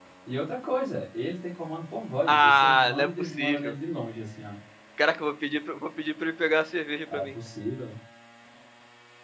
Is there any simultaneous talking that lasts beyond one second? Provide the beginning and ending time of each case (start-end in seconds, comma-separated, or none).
2.3-3.7